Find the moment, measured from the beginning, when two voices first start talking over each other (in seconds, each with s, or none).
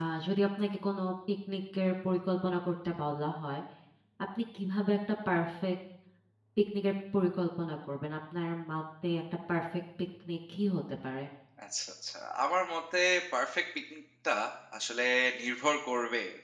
none